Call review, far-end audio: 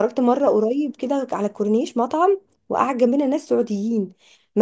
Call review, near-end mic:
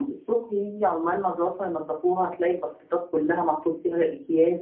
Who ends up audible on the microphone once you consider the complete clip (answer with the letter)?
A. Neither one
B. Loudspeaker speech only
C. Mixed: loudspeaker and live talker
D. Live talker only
D